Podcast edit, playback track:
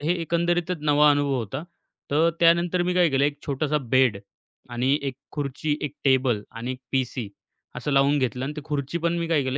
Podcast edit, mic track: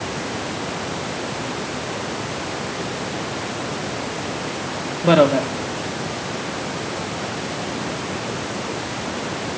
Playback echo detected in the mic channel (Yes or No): No